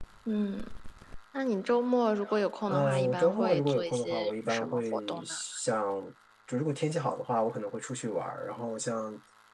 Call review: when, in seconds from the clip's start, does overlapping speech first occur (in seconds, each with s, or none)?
2.7 s